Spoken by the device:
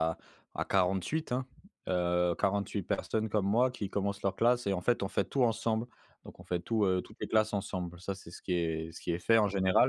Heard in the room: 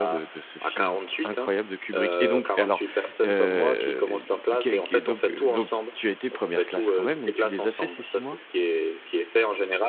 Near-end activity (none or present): present